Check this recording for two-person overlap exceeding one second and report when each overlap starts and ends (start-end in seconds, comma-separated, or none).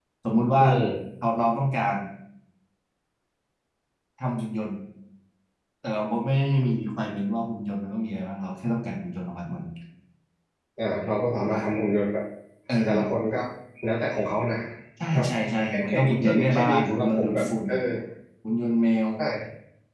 15.7-17.5